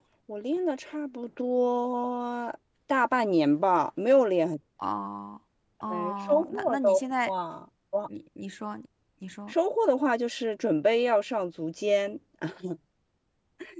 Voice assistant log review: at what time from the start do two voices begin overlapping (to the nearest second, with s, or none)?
6 s